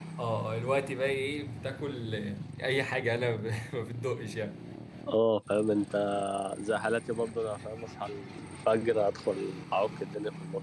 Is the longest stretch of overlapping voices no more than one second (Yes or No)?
Yes